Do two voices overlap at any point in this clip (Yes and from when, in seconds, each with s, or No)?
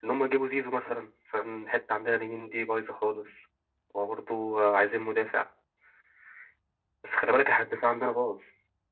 No